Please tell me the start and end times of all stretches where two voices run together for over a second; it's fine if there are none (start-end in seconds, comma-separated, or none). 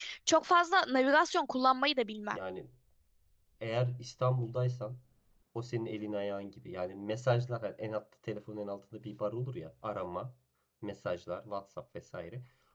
none